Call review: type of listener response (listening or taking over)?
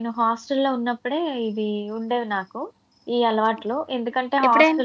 listening